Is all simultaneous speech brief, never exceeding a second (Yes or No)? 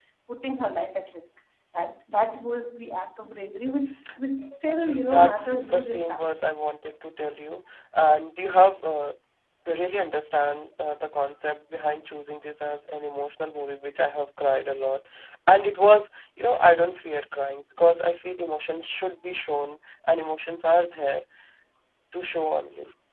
No